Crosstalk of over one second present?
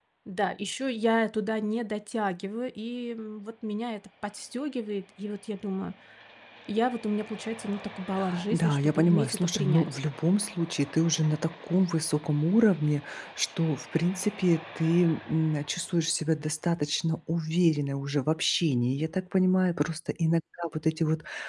Yes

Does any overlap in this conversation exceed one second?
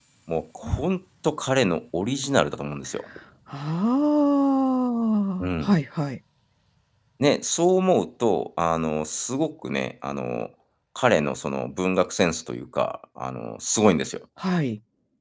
No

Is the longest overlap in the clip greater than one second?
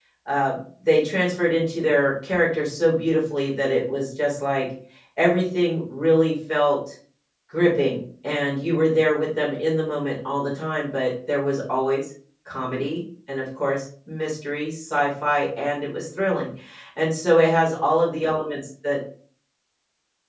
No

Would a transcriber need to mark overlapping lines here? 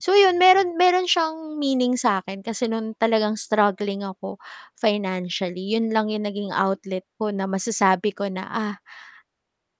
No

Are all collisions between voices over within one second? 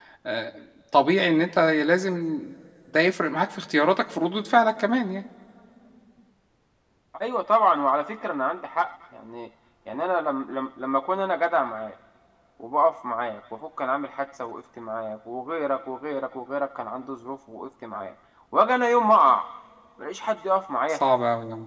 Yes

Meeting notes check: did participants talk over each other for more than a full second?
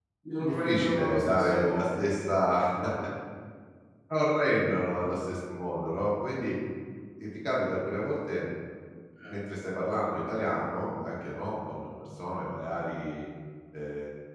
Yes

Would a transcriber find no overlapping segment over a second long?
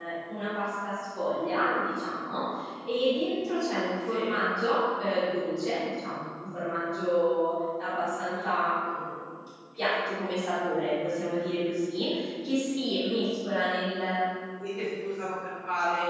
Yes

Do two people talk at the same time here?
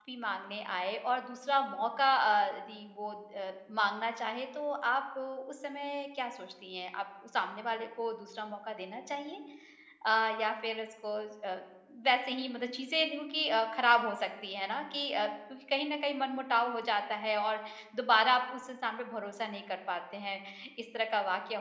No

